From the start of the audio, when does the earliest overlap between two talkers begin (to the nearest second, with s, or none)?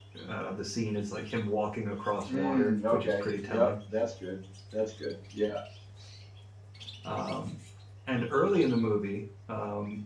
2 s